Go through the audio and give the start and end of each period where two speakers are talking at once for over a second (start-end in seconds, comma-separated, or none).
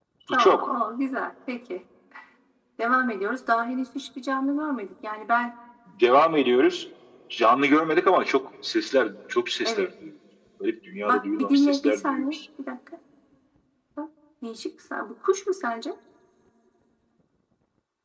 11.0-12.2